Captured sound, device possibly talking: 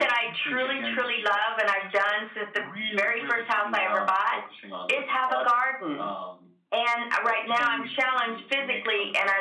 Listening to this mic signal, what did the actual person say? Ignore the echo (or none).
none